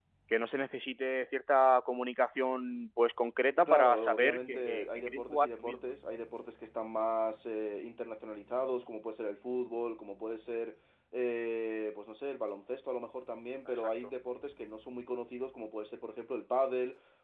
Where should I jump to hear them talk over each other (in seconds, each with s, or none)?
3.7 s